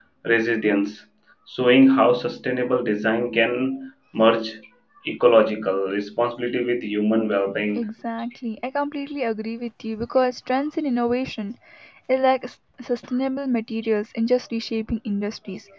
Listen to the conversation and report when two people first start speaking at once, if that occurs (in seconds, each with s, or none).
none